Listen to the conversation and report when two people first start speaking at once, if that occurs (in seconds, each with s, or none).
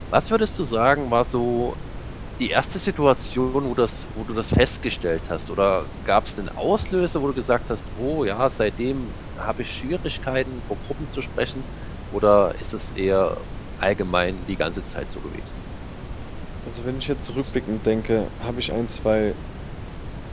none